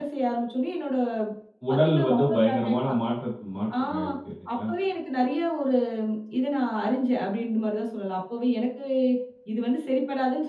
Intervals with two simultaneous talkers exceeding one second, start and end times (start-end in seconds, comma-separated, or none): 1.7-3.0